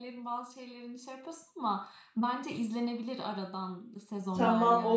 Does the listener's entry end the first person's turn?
Yes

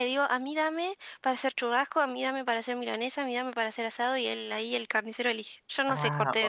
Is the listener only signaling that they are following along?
No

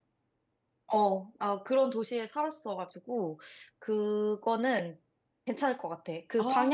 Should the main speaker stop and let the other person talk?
No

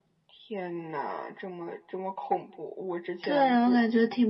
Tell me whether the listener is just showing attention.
No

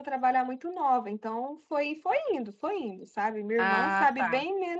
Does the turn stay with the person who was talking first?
Yes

